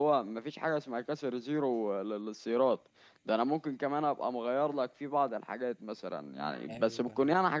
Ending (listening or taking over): listening